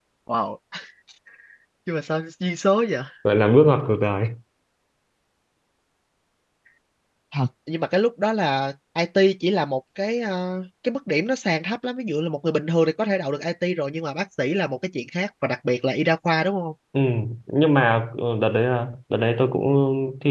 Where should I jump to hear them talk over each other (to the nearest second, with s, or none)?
none